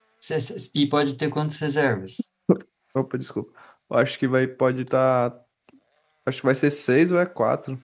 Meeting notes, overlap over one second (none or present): none